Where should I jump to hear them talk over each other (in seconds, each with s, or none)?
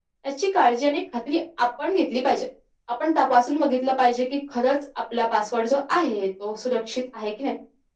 none